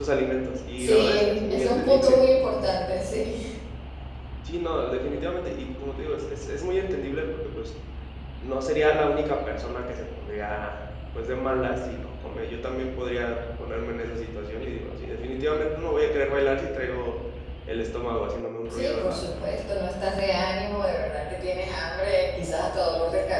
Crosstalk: present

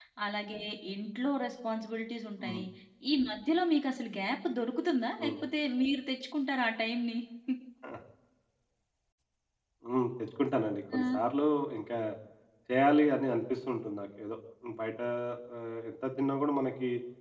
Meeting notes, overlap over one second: none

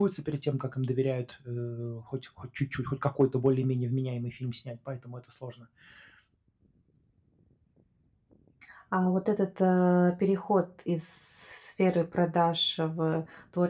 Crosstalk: none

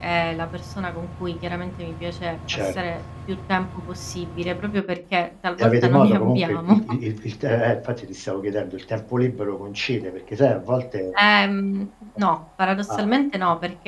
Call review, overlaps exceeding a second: present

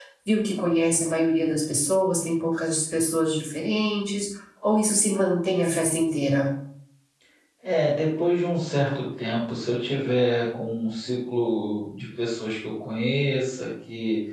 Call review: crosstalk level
none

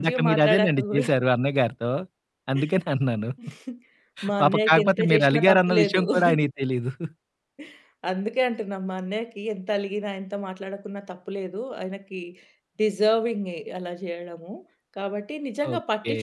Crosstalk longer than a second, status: present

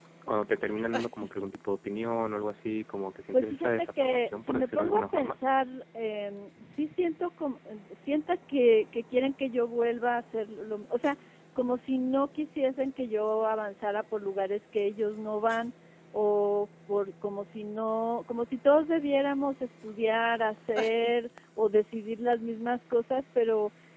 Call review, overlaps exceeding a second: present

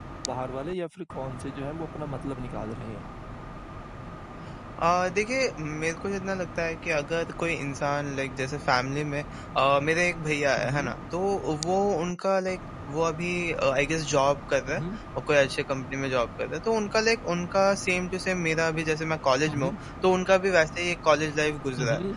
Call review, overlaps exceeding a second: none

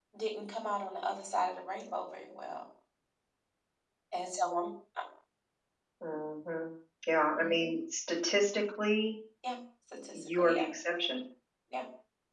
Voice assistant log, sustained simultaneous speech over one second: none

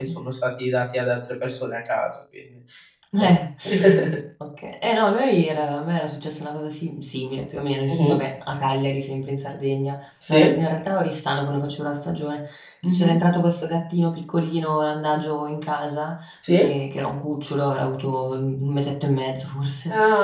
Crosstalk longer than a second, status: none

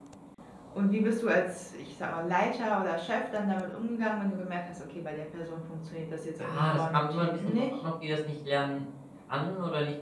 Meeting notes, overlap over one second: present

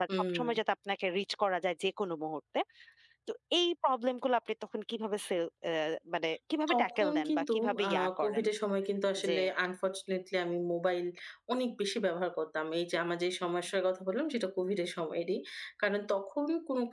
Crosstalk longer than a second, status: present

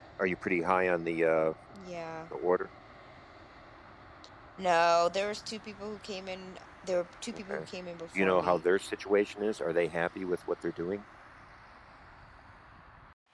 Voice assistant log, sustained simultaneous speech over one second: none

